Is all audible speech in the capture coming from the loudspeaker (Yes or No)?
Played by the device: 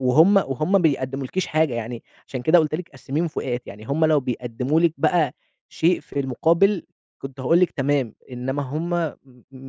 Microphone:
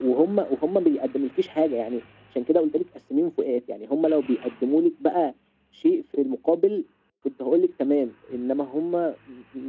Yes